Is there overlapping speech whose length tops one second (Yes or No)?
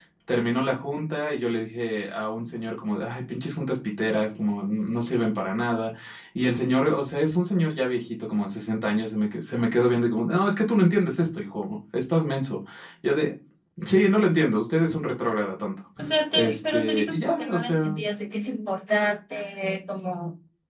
Yes